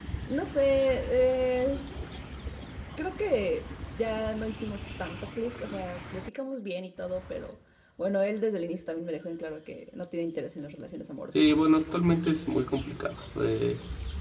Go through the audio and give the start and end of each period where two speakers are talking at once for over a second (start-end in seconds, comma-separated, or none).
none